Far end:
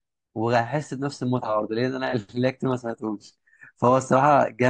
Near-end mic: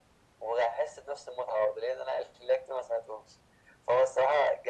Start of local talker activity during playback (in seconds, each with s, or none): none